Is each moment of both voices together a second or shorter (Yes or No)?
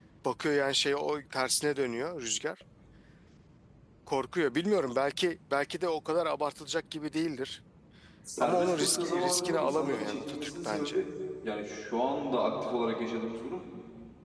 No